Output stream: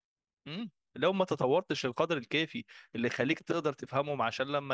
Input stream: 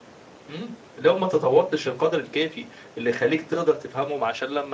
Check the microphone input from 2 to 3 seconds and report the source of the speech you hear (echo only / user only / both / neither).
echo only